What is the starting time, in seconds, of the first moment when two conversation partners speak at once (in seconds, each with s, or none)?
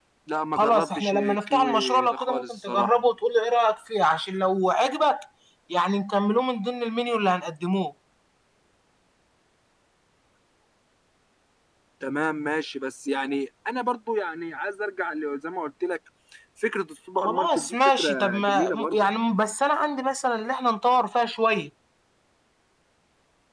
0.6 s